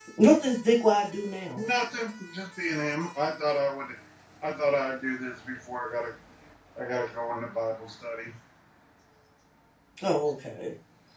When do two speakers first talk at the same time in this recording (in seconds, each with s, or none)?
none